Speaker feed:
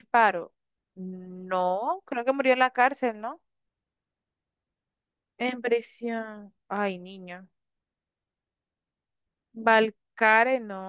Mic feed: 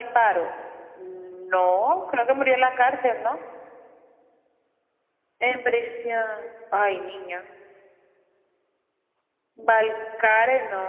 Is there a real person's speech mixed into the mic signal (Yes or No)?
No